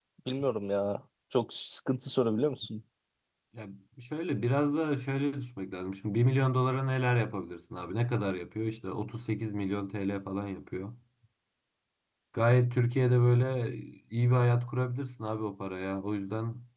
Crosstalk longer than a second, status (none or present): none